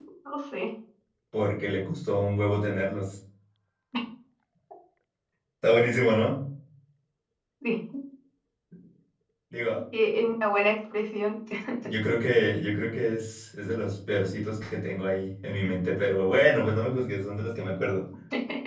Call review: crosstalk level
none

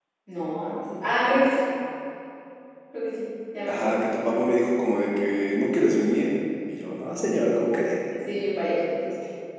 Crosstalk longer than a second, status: none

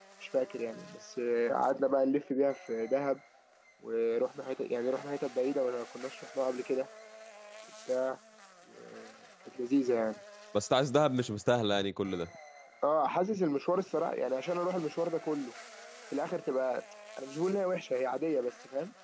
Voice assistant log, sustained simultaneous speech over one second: none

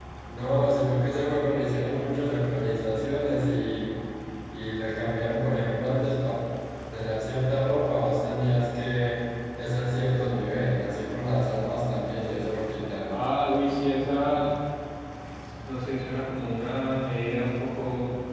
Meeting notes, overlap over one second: none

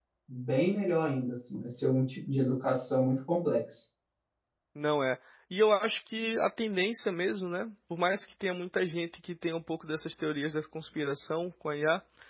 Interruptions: none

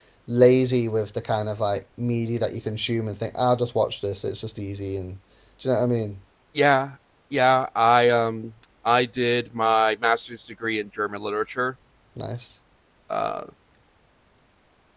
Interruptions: none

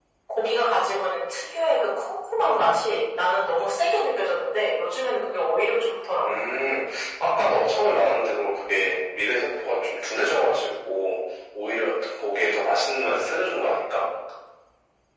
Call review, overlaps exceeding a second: none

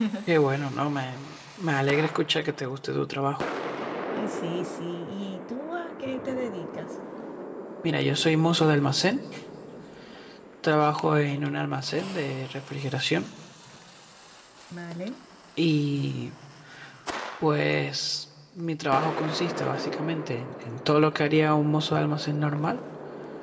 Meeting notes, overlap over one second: none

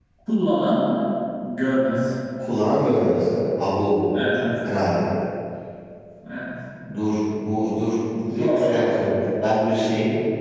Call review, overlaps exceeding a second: none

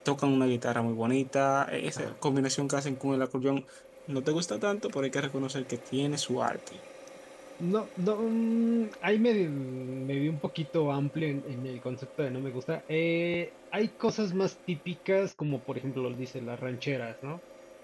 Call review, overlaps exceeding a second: none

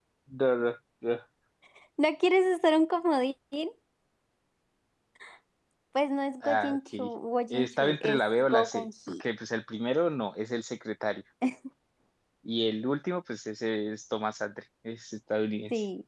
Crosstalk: present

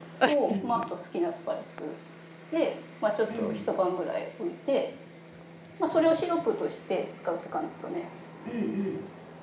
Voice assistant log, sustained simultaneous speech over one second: none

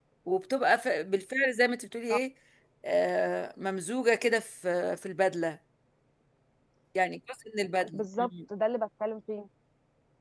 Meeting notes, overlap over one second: none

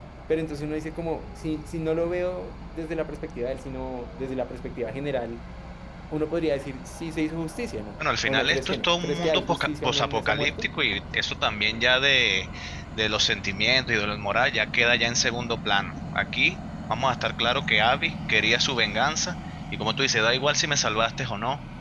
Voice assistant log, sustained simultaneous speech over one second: present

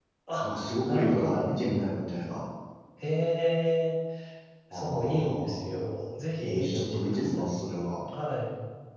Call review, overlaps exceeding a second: present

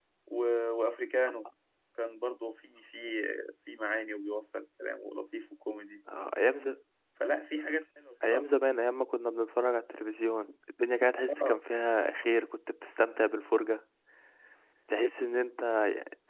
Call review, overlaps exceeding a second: none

